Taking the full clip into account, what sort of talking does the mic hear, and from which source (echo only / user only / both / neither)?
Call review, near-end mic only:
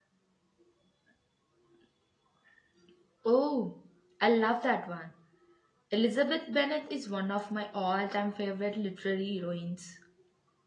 user only